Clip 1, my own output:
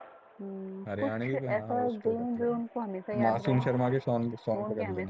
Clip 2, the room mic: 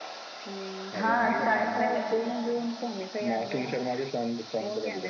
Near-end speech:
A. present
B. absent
A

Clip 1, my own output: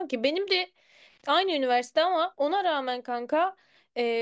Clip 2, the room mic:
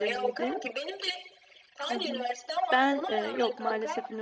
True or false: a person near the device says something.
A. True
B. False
A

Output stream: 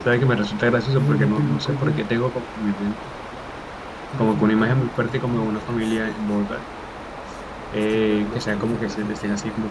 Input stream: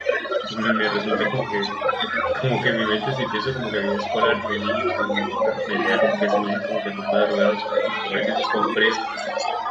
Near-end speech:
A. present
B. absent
A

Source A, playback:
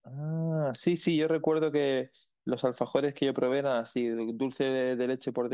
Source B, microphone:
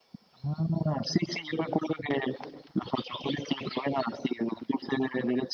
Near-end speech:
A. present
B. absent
B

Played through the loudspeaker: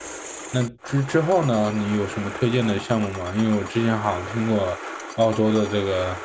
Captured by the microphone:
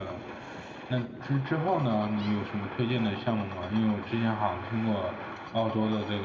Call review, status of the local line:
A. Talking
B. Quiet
B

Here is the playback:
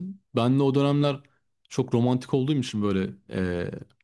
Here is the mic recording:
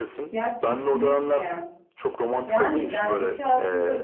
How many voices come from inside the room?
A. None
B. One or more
B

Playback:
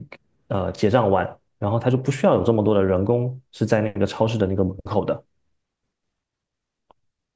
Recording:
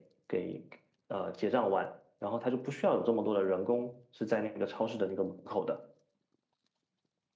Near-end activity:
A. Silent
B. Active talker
A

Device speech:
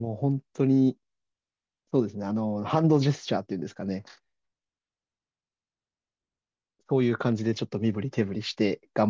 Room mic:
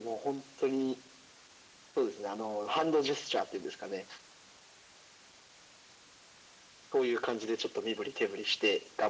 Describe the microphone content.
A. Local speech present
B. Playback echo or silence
B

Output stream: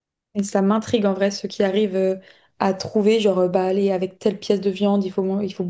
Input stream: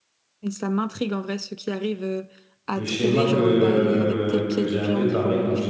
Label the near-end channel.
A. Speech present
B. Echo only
A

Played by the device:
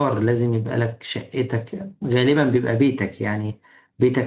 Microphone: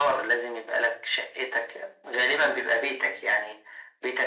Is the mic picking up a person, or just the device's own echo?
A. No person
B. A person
A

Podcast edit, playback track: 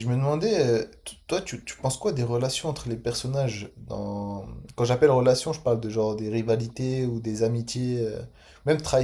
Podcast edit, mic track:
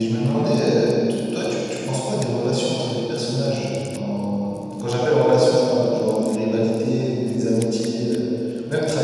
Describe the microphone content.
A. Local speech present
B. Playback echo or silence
B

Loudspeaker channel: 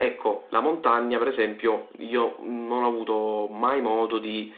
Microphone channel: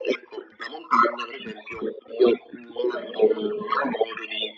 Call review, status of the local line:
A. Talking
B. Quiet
A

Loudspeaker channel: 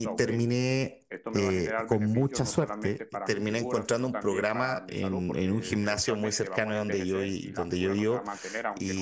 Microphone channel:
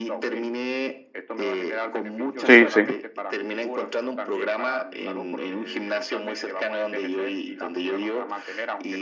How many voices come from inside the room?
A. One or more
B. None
A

